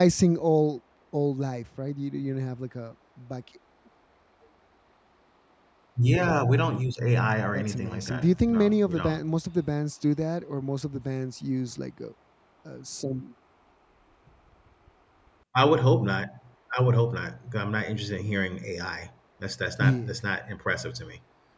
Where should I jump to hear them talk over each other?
7.5 s

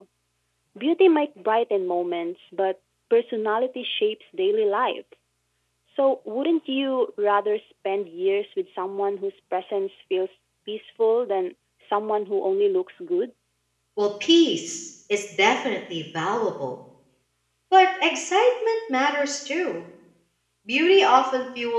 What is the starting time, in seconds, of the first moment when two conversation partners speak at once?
none

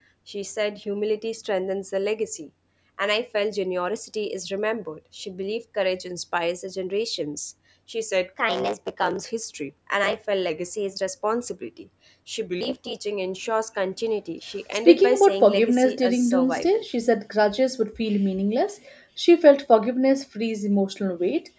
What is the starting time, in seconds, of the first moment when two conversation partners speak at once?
14.8 s

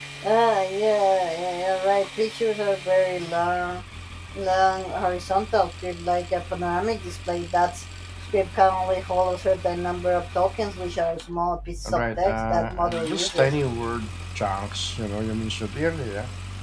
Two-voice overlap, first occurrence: 11.8 s

